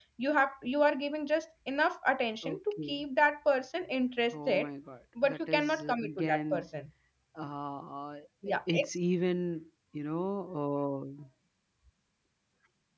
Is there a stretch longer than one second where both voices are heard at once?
Yes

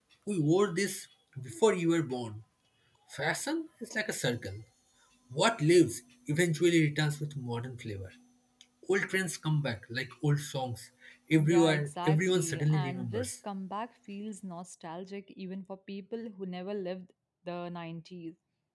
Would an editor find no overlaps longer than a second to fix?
No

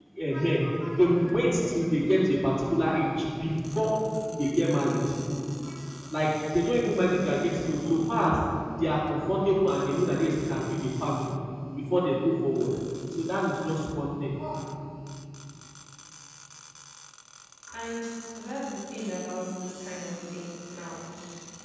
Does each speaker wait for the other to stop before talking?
Yes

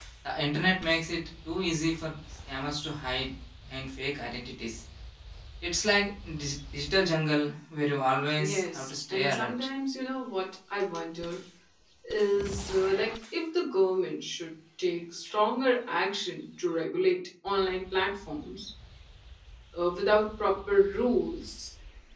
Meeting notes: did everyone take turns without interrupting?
No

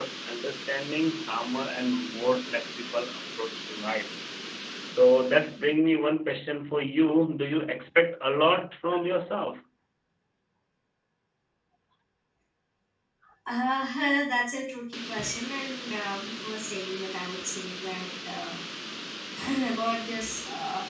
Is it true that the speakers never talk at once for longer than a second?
Yes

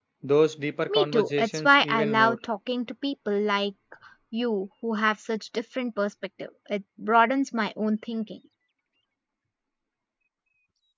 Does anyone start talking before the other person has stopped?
Yes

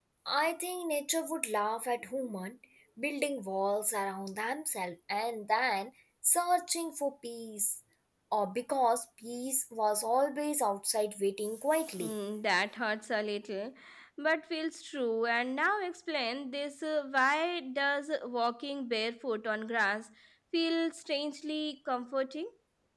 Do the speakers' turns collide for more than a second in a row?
No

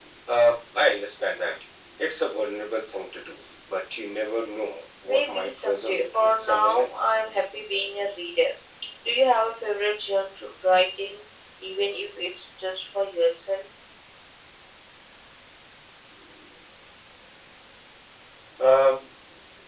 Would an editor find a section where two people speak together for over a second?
Yes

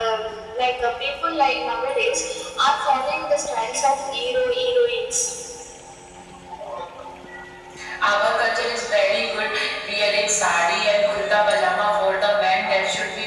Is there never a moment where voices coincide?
Yes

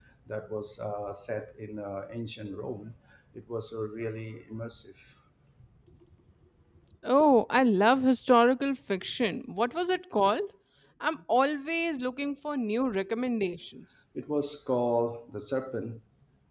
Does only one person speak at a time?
Yes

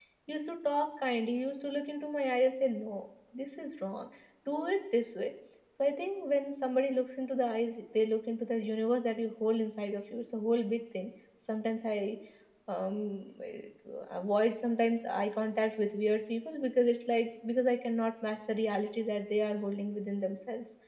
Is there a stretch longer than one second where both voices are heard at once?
No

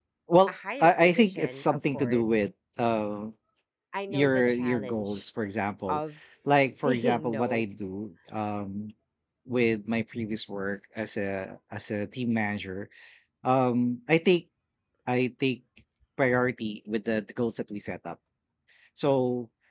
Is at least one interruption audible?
Yes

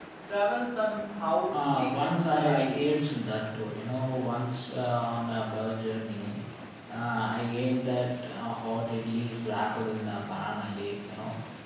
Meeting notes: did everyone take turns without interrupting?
No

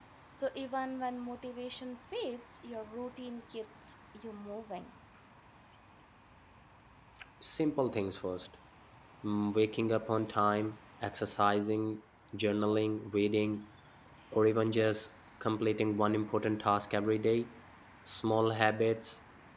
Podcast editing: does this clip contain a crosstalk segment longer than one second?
No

